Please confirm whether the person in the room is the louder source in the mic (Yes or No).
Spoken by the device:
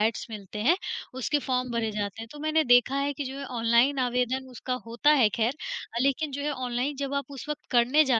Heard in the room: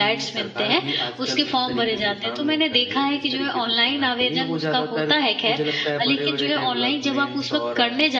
No